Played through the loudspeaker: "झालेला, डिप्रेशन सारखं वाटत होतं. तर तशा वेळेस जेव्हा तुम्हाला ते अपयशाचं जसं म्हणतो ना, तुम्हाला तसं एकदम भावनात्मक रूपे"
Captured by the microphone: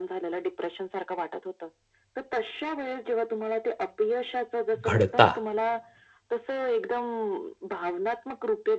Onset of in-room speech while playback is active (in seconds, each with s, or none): 4.9 s